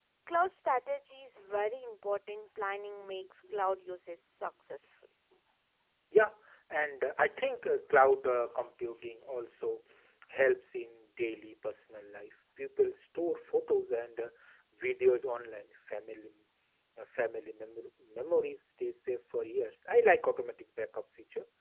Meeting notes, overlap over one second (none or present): none